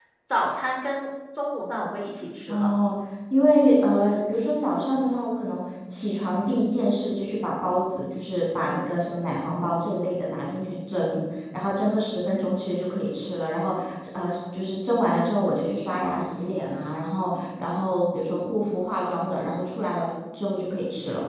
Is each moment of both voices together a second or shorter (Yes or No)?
Yes